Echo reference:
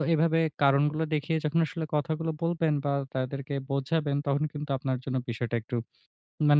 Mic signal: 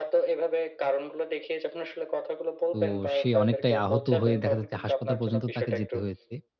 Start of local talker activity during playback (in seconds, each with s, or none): 2.7 s